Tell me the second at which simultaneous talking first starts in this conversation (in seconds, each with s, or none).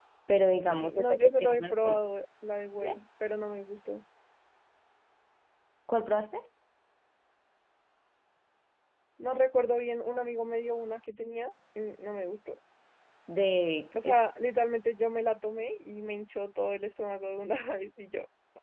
0.7 s